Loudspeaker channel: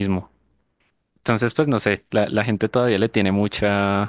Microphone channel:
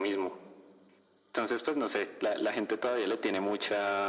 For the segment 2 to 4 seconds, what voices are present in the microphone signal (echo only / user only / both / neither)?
echo only